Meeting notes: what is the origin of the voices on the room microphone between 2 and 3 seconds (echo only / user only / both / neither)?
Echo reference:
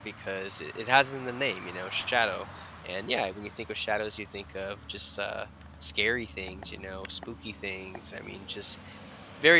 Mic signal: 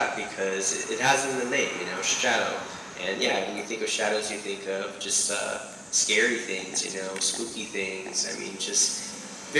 echo only